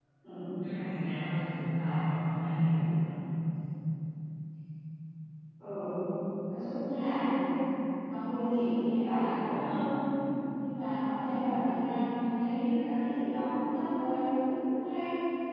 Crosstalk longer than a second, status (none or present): none